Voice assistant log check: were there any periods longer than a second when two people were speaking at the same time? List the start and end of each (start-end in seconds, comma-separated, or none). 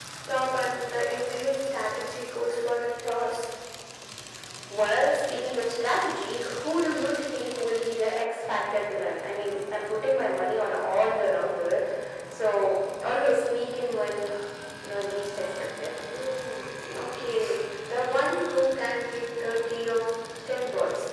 none